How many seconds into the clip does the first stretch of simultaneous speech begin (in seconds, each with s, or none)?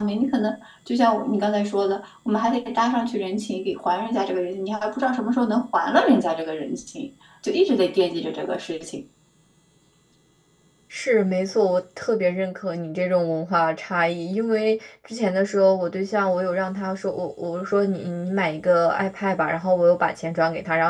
none